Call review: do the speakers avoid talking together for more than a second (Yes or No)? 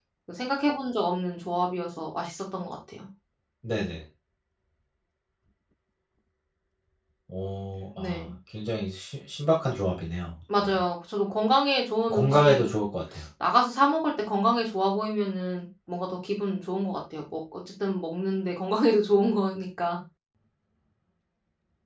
Yes